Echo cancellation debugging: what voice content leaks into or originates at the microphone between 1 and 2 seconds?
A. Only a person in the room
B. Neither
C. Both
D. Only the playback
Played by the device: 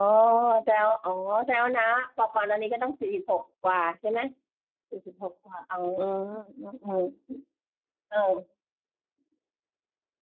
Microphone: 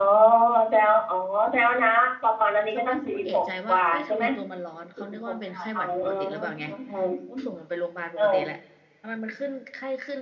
D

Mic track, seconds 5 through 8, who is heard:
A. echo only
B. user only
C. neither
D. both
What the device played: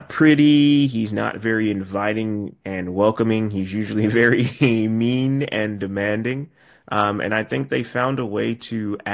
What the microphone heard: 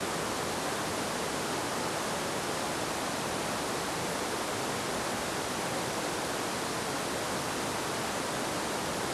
C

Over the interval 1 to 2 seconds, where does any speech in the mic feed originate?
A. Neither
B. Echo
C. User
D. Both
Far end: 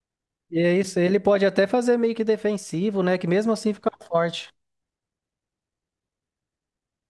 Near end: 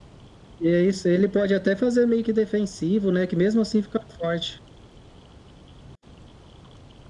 B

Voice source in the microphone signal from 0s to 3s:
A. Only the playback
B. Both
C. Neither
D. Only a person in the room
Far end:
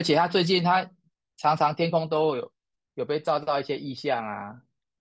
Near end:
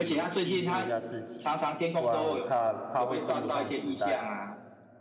B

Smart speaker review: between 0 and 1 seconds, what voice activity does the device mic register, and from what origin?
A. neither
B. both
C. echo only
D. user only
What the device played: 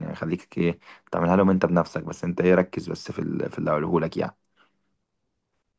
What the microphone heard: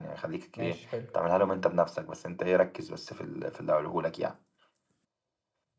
B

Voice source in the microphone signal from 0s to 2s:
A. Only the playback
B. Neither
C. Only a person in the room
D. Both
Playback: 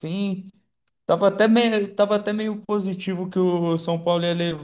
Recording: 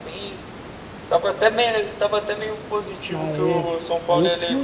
A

